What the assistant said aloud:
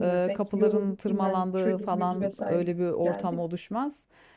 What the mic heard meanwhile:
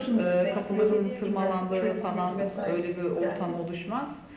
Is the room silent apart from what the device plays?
No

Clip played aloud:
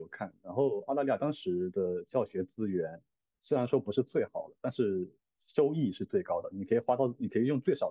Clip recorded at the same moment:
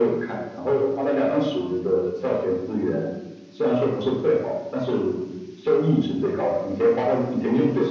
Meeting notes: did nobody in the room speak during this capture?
Yes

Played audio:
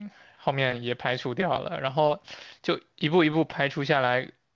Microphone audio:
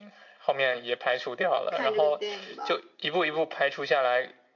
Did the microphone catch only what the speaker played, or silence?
No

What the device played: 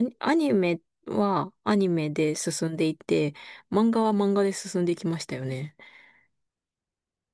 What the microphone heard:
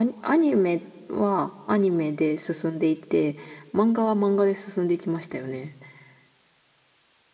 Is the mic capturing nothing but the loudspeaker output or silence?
Yes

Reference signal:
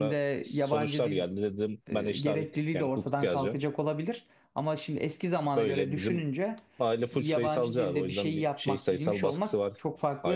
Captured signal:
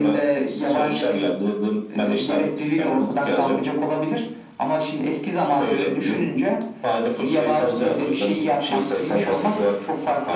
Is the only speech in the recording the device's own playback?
Yes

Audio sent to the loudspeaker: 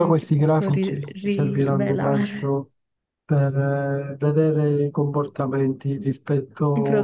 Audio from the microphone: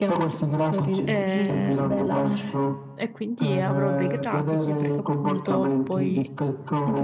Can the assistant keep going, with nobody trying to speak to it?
No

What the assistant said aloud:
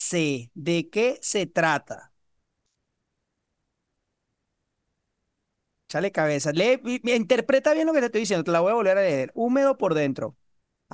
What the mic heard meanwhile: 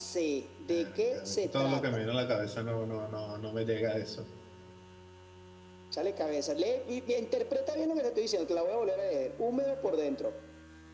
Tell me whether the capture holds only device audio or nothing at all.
No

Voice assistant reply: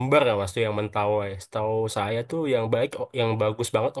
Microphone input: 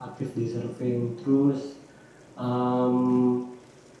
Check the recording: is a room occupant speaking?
Yes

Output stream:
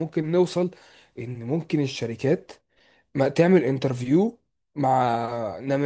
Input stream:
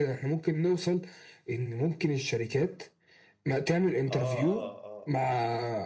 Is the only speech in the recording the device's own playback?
No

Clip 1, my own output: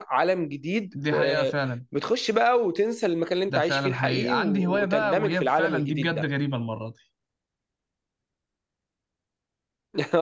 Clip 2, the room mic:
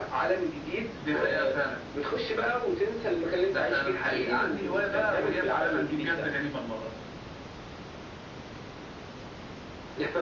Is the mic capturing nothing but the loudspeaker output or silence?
Yes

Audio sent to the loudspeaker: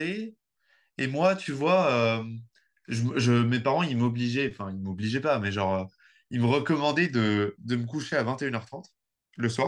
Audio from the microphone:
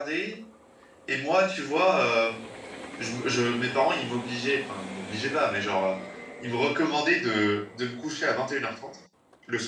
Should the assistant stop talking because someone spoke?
No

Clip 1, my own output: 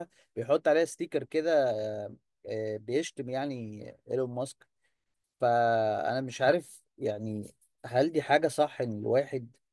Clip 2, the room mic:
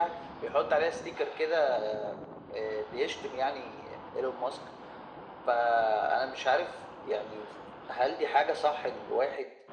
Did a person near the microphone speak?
No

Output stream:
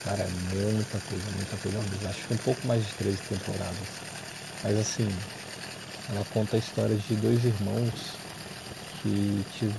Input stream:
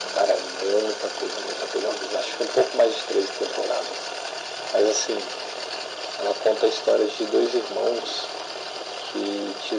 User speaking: No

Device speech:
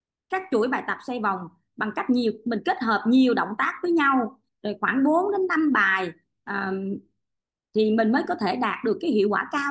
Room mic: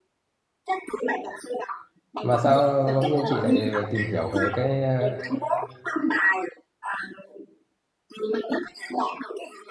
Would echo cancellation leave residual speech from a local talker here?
Yes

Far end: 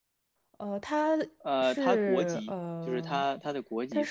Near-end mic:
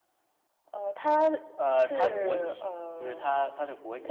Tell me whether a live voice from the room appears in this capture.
No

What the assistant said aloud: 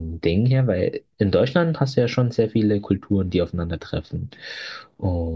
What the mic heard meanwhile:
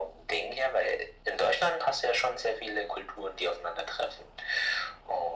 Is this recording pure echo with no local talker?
Yes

